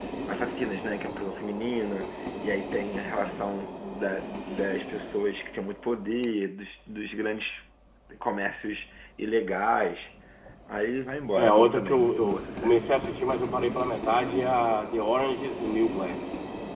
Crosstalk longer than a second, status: present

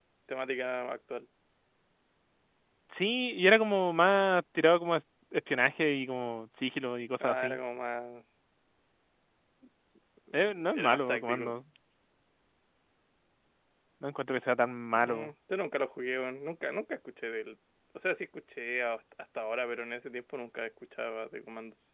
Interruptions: present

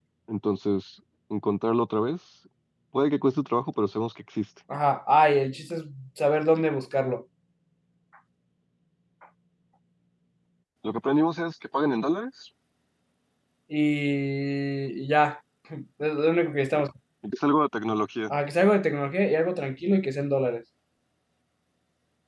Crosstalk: none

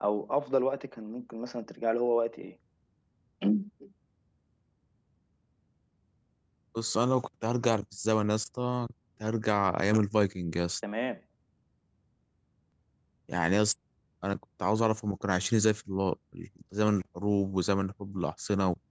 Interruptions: none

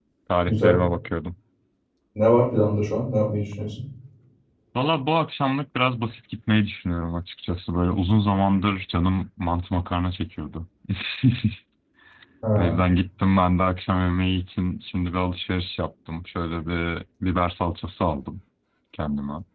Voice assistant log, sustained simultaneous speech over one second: none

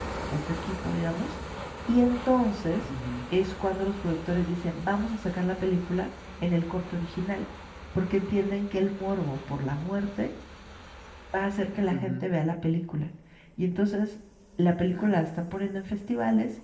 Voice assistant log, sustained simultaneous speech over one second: none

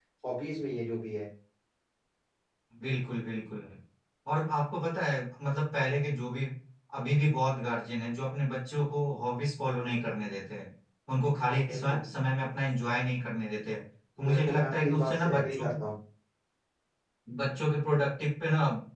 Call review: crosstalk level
present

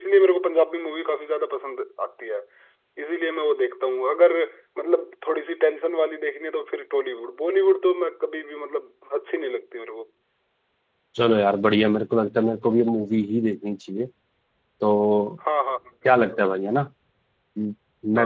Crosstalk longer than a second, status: none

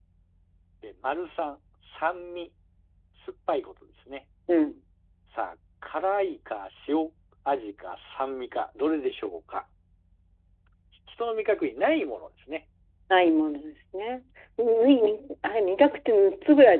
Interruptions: none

